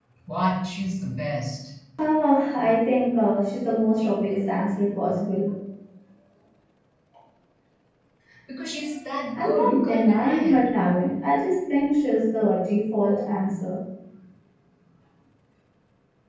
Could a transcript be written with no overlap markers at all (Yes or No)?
No